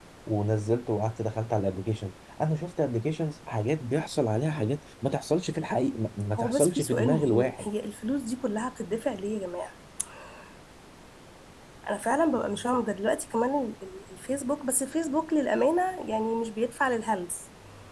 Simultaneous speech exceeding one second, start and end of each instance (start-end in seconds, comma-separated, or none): 6.4-7.7